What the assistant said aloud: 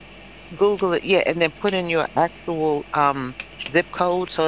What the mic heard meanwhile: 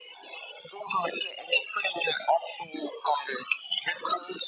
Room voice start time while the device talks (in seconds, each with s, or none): none